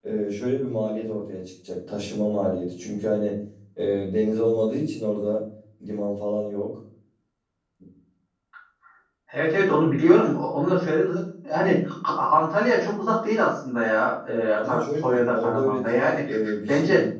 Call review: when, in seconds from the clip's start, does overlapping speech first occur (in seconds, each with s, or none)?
14.6 s